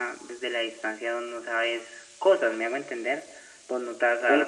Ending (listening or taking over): taking over